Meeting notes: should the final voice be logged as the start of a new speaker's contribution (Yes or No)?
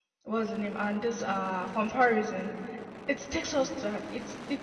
No